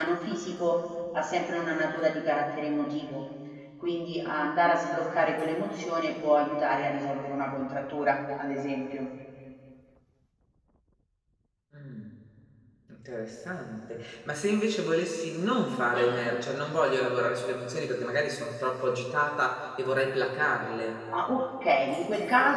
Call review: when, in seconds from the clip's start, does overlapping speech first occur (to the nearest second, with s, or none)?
none